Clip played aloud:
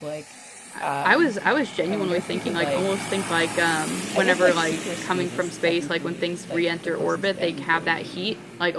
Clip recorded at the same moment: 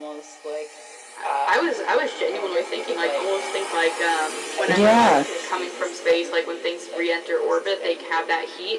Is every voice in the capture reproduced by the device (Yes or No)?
No